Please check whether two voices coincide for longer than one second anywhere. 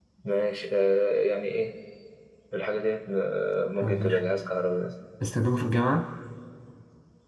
No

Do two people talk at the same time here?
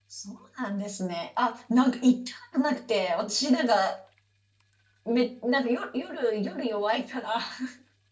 No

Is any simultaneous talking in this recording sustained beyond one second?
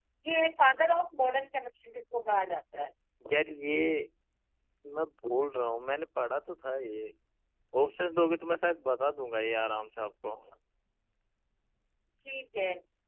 No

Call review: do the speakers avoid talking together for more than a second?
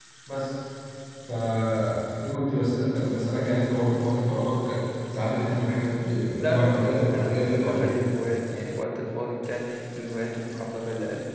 No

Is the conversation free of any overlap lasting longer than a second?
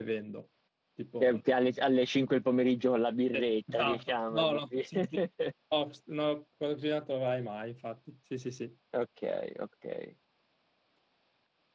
No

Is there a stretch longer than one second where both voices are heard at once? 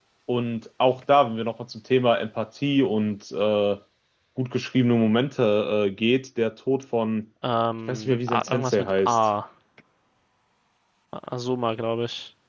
Yes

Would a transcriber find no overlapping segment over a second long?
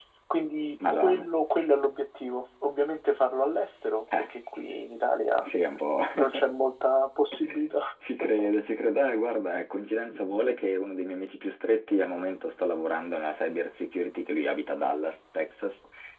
Yes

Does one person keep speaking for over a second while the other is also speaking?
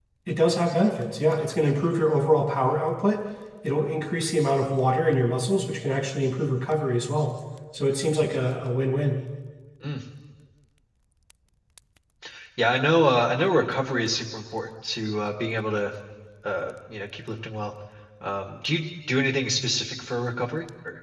No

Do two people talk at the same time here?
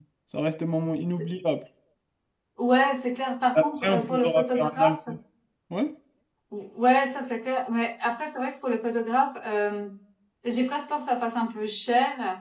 Yes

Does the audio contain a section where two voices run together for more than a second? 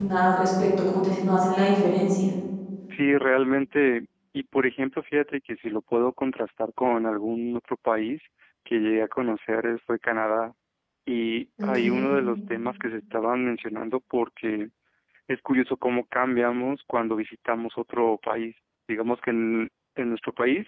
No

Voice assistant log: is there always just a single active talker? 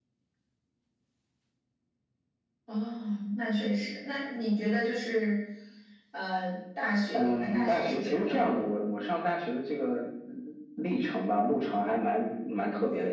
No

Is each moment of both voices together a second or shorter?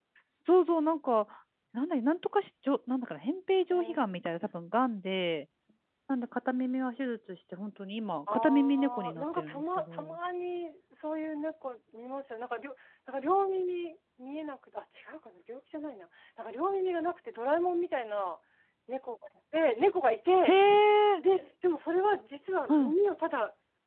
No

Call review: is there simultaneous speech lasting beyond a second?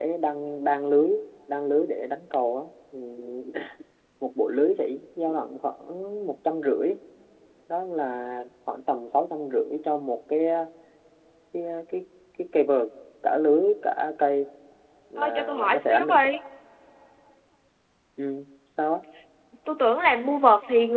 Yes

